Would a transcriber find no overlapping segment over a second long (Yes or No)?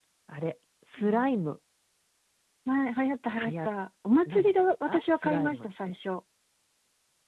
No